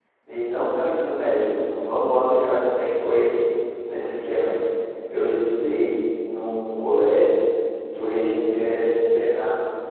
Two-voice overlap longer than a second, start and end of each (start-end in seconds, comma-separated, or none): none